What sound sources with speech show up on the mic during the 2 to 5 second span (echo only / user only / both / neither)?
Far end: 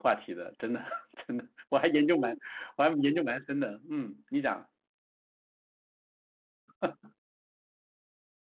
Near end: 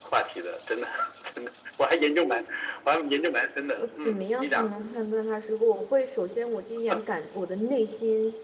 both